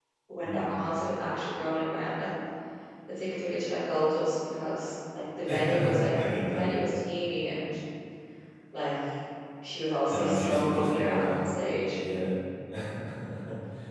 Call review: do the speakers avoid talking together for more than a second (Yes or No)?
No